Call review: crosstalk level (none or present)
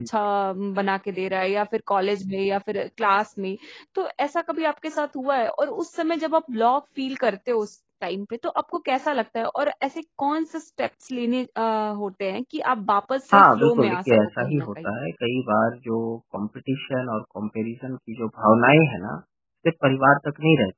present